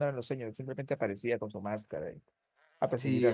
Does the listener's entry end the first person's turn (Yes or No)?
Yes